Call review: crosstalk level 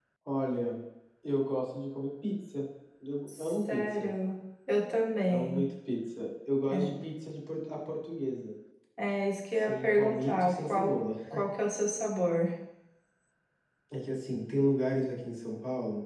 present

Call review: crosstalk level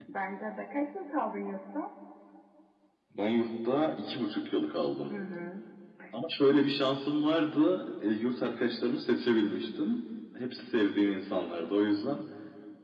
none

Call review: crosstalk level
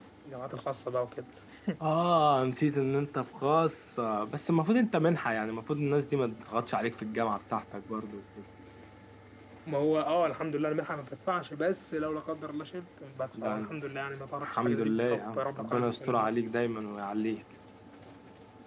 present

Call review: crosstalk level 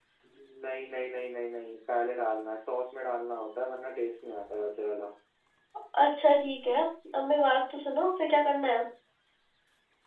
none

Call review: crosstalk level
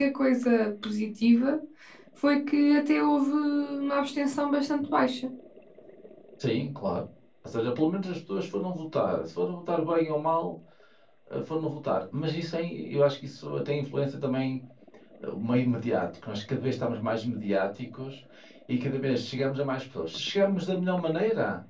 none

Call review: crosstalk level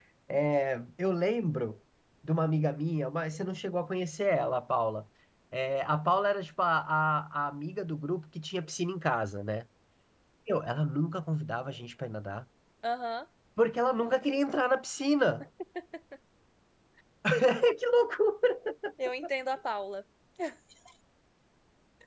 none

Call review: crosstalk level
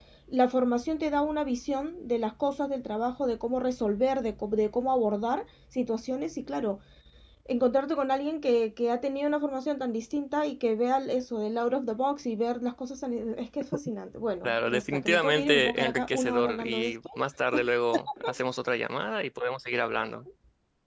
present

